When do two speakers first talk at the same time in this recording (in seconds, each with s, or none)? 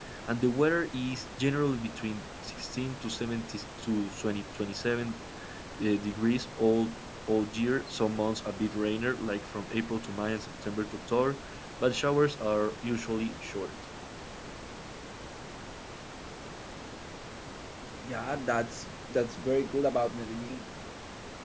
none